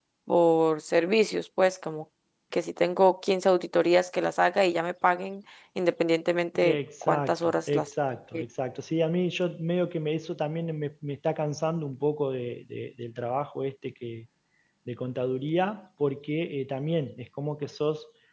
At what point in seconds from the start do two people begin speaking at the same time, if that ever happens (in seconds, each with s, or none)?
6.6 s